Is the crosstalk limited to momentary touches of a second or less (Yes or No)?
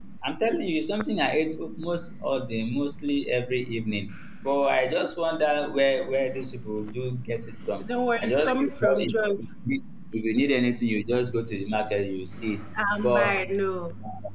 No